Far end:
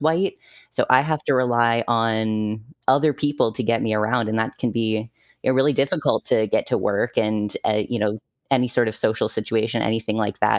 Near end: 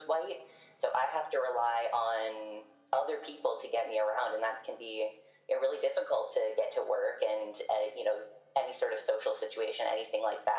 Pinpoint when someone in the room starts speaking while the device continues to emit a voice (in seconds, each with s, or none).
none